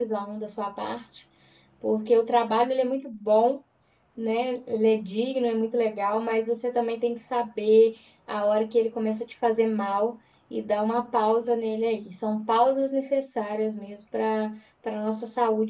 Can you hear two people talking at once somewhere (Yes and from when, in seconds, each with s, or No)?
No